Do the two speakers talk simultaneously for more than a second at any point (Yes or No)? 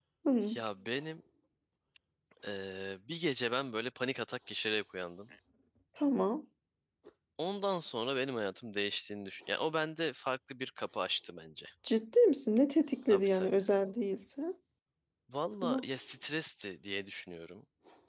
No